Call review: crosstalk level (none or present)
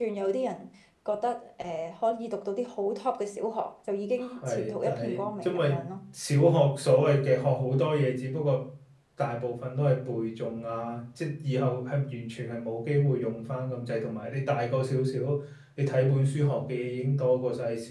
present